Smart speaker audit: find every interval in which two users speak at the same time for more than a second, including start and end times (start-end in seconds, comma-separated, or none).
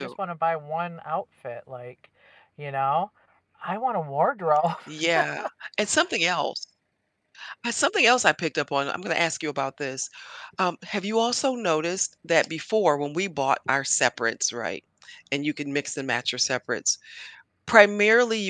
none